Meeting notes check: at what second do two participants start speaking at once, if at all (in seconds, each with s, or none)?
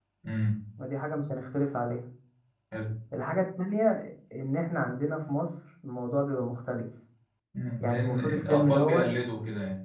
7.8 s